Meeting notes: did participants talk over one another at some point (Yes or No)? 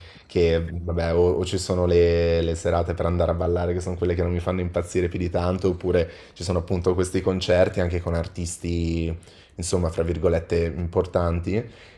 No